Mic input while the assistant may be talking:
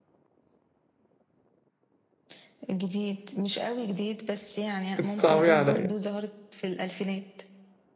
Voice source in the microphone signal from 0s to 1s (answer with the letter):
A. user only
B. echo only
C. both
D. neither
D